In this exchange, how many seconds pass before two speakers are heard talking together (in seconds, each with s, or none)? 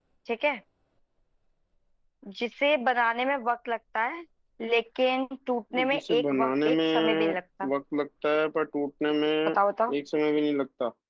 5.9 s